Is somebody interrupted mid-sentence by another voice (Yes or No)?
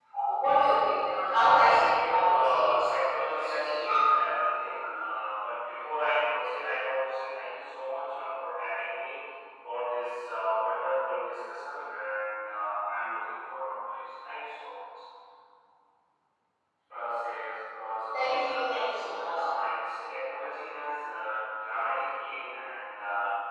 Yes